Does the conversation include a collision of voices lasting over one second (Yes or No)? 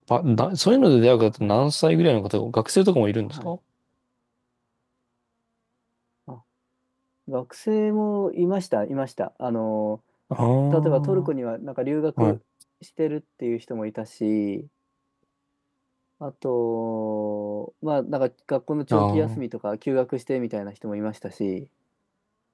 No